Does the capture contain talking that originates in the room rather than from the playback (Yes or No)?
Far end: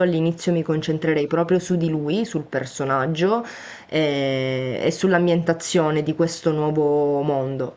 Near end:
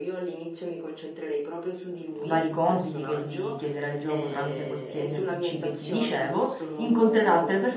Yes